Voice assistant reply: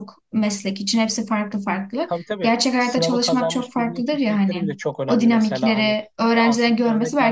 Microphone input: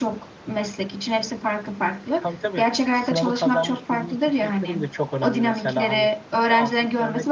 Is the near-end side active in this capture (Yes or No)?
No